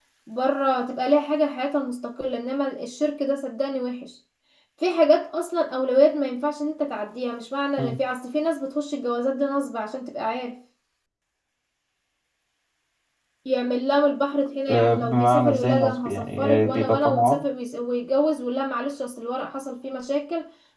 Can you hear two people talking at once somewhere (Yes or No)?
Yes